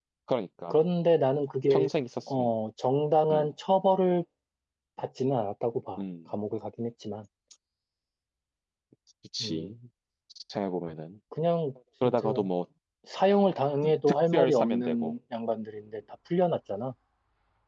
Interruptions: present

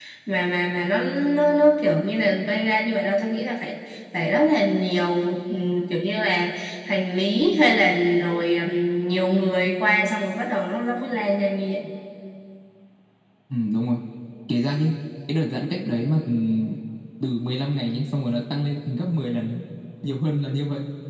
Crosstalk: none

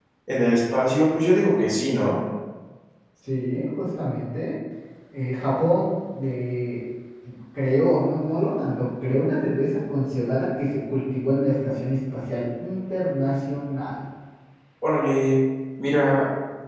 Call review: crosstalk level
none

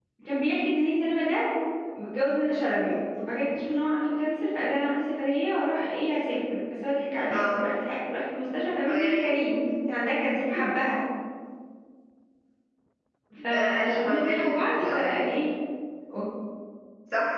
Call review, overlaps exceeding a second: present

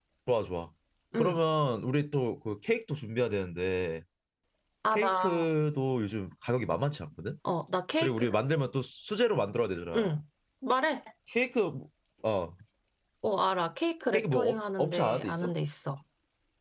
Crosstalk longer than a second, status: present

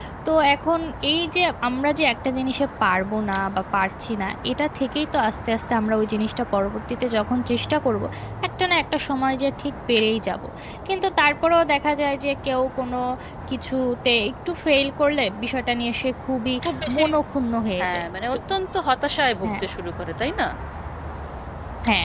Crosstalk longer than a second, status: none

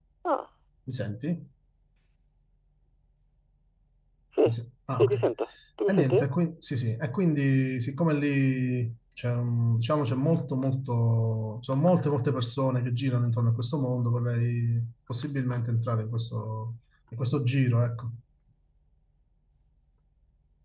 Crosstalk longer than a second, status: none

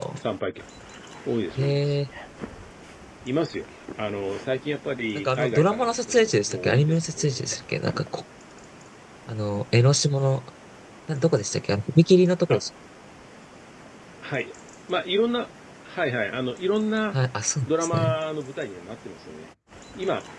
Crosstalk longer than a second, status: present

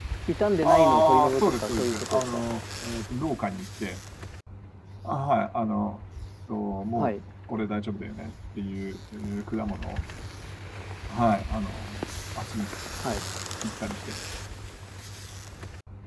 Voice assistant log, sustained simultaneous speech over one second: present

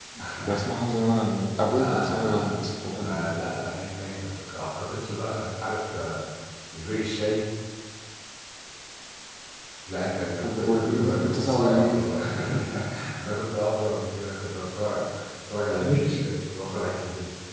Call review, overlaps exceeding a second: present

